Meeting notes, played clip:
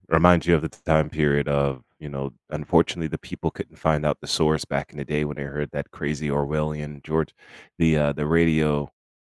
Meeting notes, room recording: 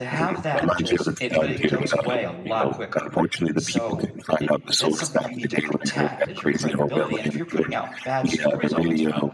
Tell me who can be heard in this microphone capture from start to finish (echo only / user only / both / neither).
both